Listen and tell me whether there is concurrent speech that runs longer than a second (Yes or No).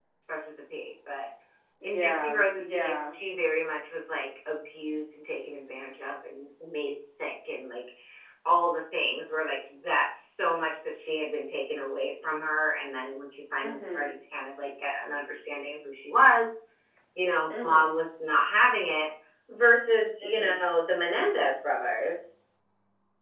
Yes